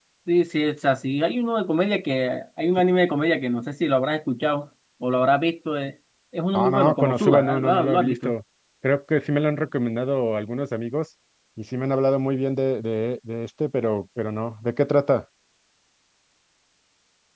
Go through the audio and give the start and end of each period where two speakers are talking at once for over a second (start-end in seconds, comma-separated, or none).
6.5-8.3